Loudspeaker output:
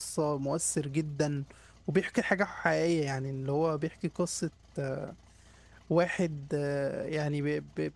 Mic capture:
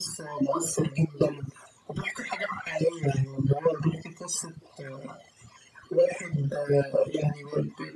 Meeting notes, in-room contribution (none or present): none